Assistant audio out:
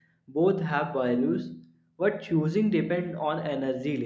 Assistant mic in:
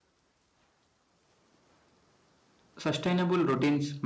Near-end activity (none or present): present